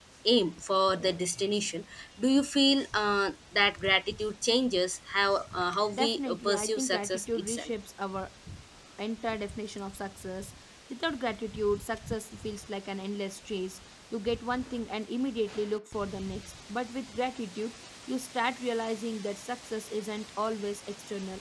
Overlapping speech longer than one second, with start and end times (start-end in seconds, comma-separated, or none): 5.9-7.7